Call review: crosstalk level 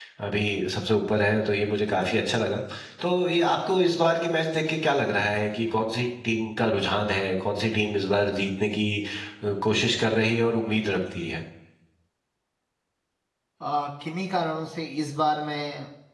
none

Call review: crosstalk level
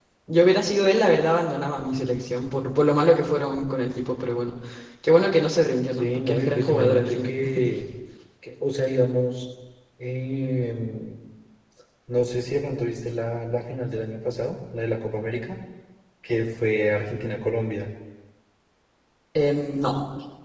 present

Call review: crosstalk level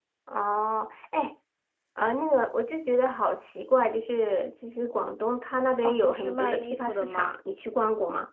present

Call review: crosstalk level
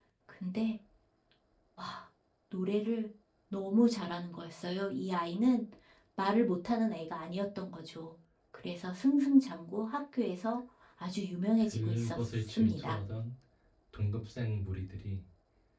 present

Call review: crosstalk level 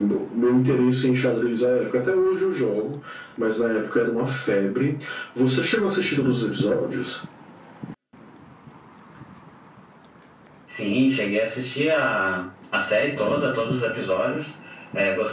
none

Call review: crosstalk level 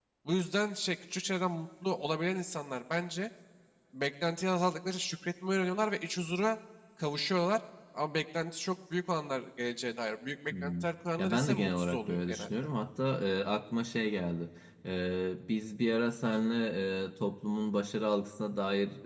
present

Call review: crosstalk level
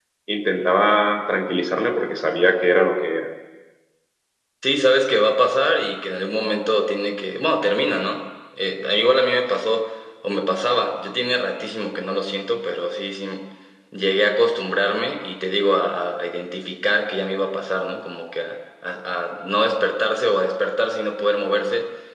none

